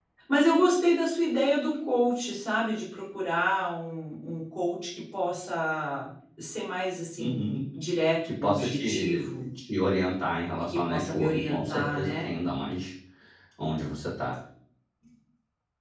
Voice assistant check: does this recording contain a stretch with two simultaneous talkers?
Yes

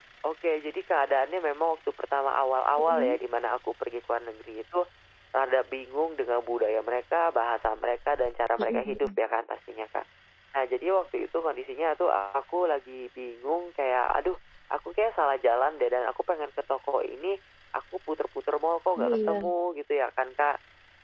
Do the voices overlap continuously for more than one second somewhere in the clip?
No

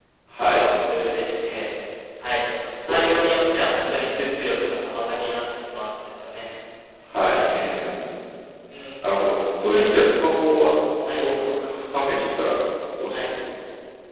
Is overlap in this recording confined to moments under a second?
No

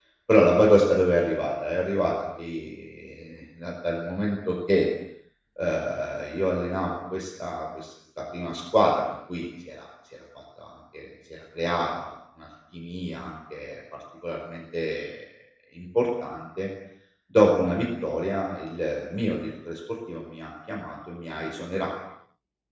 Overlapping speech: No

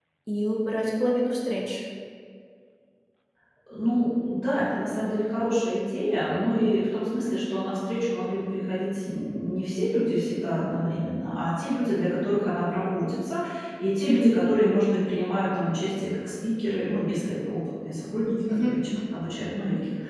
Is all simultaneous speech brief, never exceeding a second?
Yes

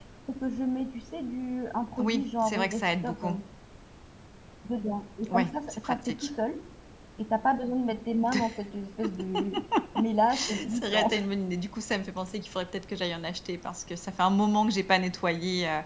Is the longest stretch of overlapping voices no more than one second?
No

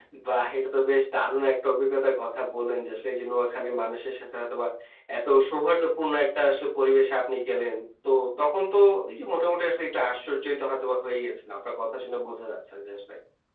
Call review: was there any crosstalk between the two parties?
No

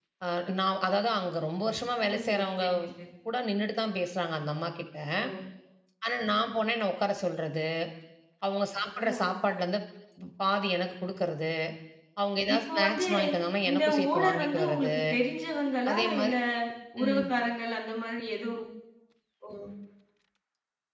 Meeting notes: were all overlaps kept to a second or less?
No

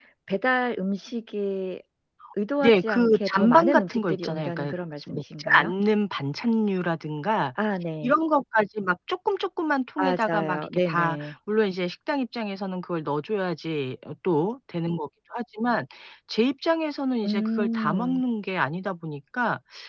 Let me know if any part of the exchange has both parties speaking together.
Yes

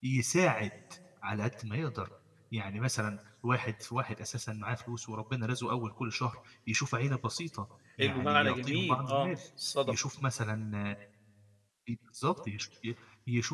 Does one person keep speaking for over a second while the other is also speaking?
Yes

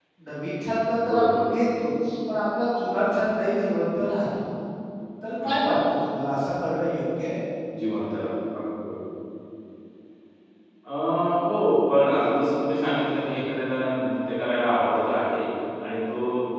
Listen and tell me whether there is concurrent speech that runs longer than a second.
No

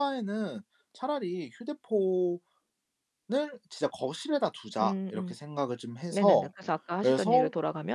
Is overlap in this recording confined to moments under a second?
Yes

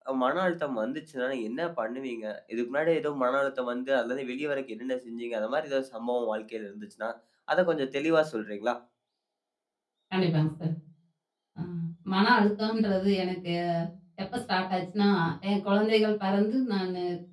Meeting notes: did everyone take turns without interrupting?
Yes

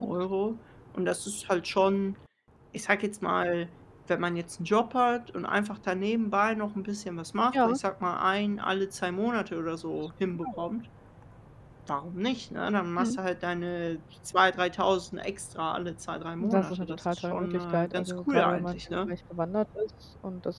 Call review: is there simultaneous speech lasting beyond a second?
Yes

